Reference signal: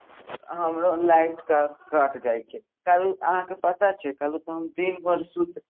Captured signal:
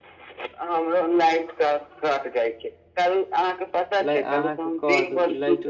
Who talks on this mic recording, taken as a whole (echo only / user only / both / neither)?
both